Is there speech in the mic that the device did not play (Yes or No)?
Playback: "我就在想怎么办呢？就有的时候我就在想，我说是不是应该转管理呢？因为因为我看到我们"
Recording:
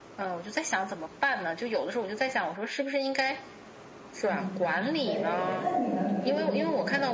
Yes